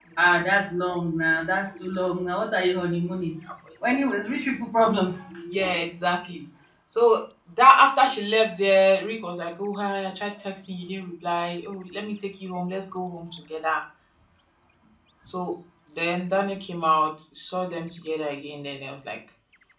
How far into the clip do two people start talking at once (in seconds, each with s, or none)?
none